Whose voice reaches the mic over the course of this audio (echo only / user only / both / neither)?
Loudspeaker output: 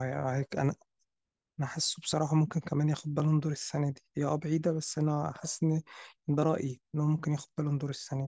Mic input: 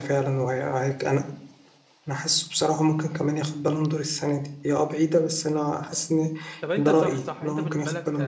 both